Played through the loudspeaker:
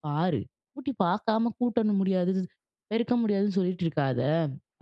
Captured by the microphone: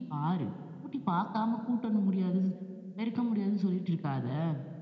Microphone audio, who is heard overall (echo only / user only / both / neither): echo only